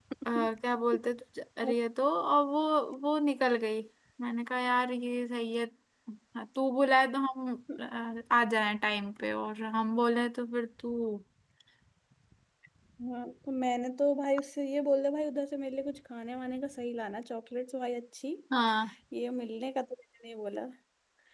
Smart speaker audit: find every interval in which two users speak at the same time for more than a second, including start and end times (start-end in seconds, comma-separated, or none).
none